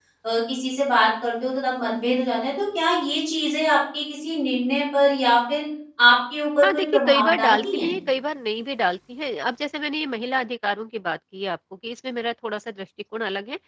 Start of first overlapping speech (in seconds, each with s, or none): 6.6 s